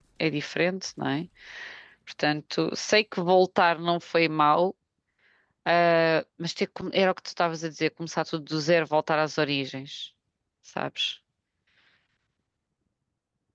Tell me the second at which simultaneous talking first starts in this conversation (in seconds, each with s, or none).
none